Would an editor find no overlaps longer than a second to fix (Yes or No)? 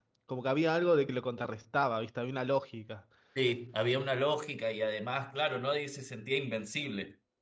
Yes